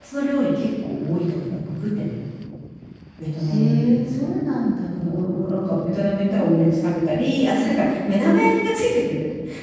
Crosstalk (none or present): present